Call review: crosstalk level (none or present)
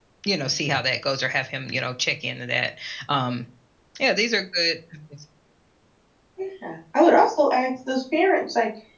none